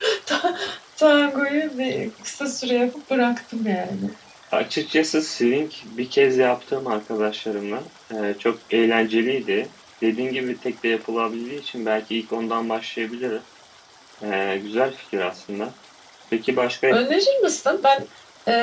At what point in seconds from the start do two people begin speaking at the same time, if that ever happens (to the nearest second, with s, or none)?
none